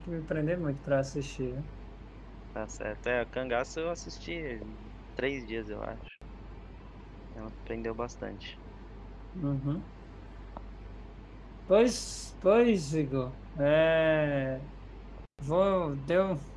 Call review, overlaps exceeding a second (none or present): none